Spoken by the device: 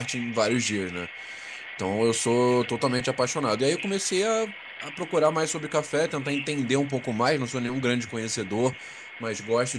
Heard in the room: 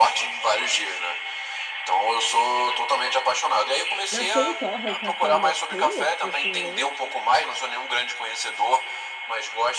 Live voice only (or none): Na sem torra, o café, ele é cru? É tipo assim, nem...